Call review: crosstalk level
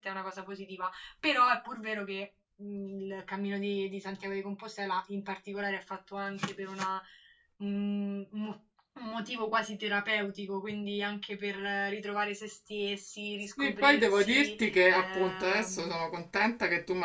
present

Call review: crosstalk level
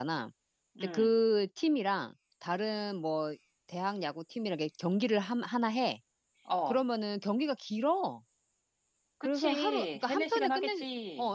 present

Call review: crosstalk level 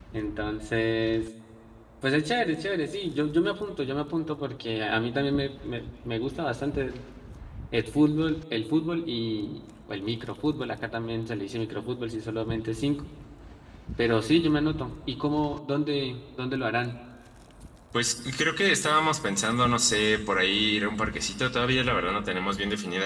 none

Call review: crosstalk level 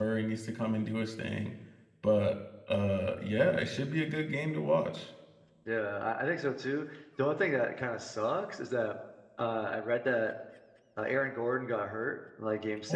none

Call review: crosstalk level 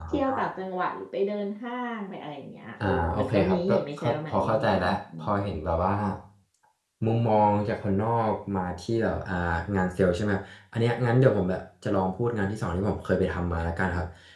present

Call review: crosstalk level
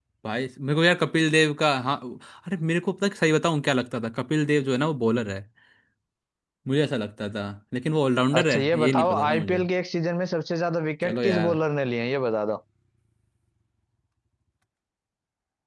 present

